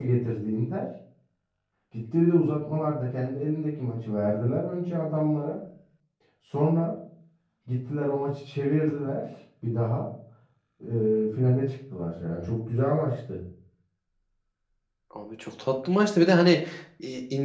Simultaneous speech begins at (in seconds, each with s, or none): none